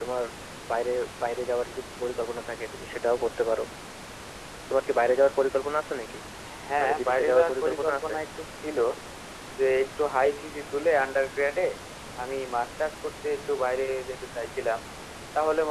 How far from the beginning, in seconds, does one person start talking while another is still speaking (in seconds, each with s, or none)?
6.8 s